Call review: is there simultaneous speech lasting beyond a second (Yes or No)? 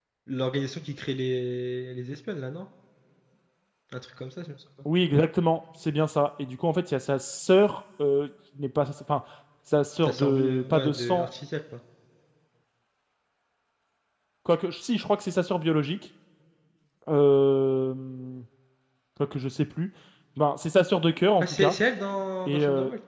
Yes